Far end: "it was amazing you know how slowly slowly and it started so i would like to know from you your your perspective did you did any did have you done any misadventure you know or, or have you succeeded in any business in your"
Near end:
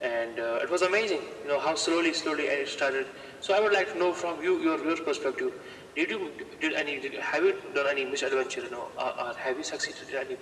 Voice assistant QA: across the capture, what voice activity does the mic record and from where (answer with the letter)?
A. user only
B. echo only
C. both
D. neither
B